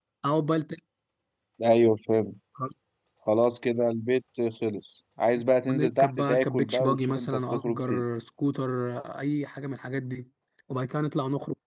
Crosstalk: present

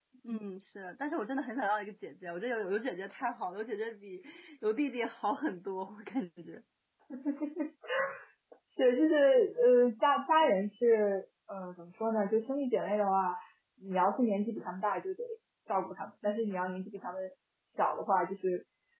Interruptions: none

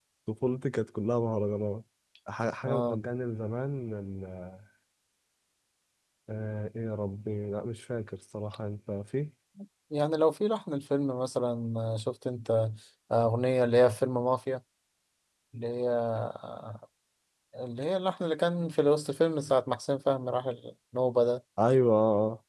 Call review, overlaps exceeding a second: none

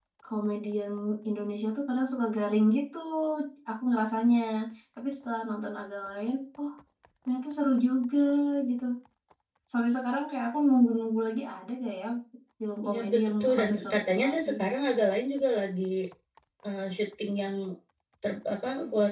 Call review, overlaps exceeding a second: present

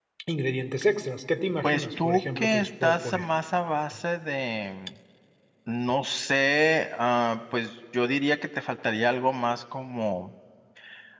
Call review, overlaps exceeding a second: present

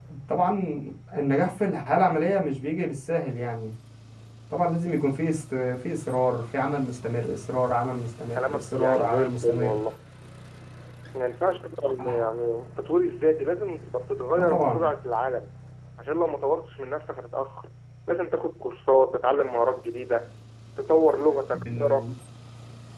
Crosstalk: present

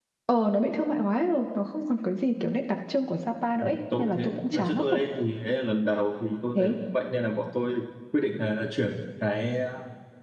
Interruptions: present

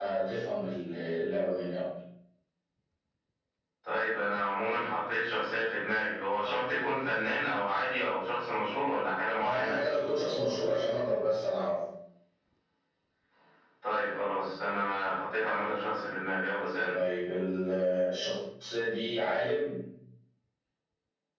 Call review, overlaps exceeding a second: none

